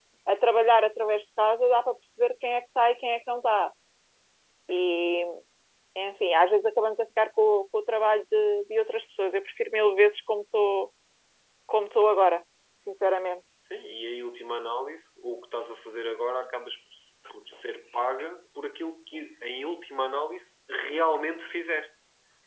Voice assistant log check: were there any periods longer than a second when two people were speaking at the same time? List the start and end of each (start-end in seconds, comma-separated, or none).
none